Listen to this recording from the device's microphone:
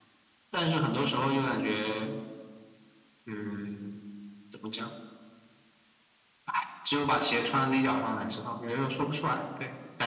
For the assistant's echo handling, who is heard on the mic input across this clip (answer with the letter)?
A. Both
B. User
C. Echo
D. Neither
C